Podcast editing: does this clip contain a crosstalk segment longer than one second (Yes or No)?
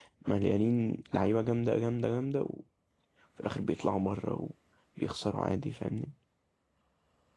No